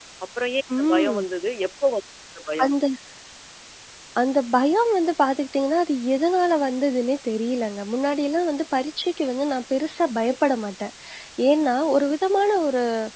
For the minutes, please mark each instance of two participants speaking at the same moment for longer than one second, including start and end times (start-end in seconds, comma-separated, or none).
none